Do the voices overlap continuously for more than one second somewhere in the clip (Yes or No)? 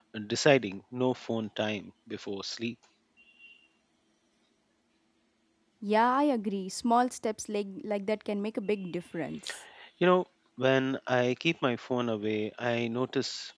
No